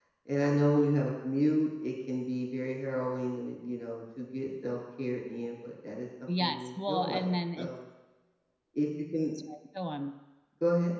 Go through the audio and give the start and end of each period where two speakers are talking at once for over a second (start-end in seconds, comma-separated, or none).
6.4-7.7